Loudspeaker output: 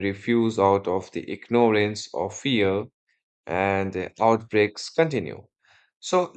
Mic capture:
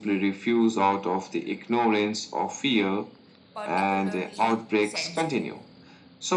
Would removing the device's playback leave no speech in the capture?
No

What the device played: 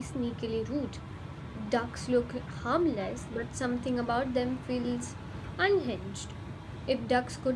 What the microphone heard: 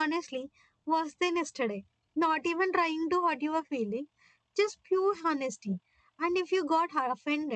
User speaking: Yes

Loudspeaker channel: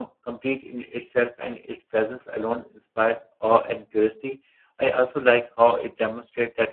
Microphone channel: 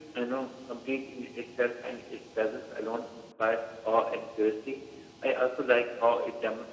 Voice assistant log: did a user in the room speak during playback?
No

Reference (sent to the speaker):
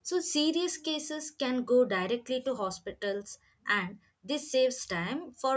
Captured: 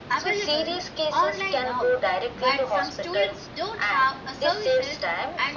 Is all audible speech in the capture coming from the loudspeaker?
No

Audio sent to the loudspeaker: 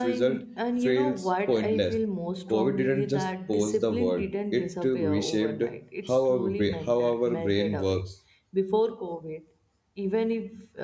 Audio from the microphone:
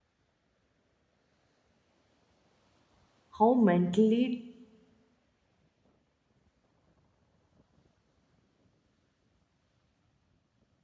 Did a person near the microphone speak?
Yes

